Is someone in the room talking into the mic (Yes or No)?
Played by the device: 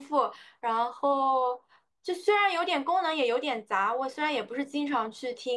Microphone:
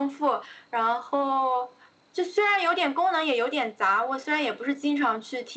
No